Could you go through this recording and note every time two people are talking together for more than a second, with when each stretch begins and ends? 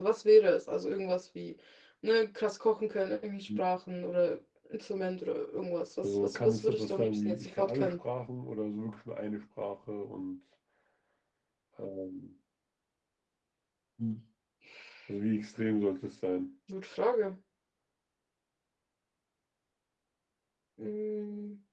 6.0-8.0

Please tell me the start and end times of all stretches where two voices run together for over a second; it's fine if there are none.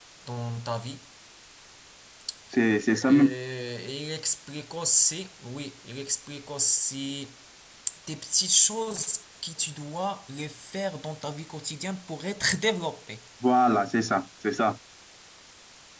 none

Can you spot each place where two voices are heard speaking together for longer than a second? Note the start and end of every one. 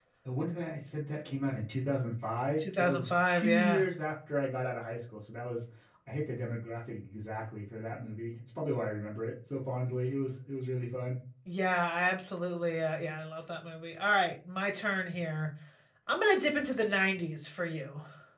2.6-3.8

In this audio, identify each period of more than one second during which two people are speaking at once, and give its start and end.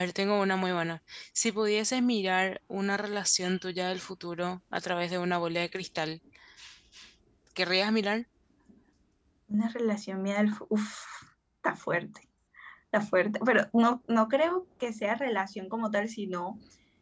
none

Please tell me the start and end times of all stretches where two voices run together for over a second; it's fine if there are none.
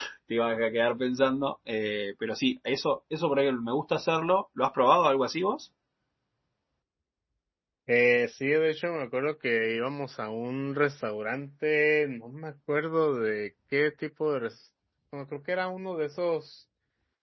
none

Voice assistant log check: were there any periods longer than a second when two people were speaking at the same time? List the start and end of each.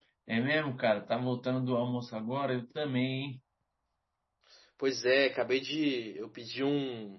none

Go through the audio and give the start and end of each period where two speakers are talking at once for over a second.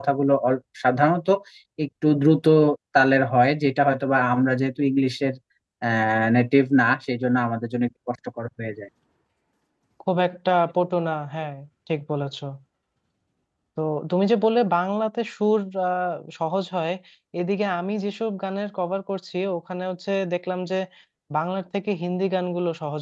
none

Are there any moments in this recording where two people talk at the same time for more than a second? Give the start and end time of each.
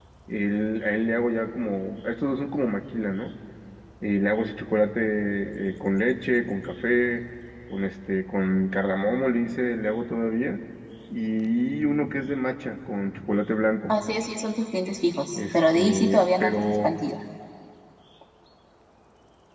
15.4-16.9

